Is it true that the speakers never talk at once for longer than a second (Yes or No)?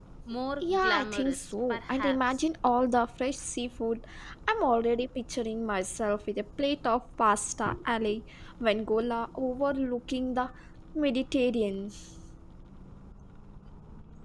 No